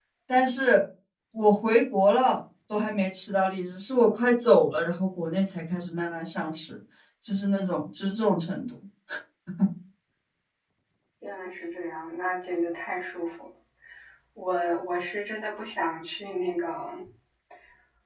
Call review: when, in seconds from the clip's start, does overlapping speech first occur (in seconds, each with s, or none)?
none